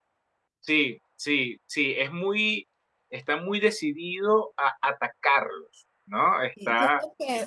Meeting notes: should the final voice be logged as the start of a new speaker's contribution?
Yes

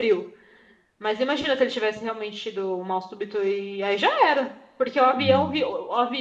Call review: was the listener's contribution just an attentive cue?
Yes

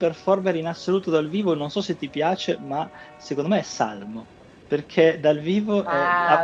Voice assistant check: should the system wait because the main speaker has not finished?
No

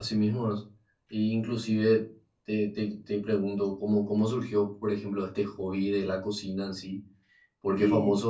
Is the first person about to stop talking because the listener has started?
No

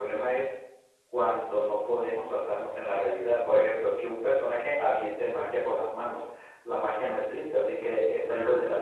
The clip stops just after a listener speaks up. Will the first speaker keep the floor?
Yes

